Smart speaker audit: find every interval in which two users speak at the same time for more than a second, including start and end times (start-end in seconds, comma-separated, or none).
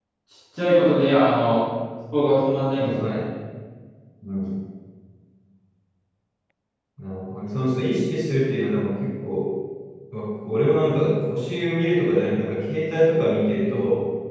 none